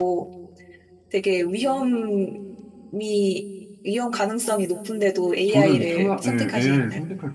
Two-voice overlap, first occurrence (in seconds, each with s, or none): 5.5 s